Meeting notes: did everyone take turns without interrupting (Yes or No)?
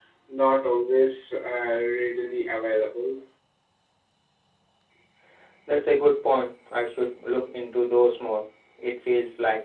Yes